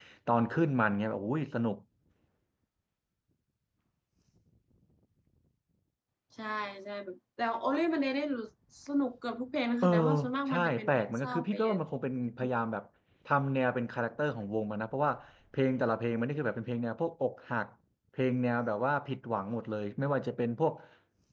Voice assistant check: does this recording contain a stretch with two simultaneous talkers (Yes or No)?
Yes